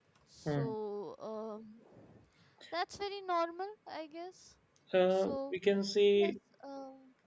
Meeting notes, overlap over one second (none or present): none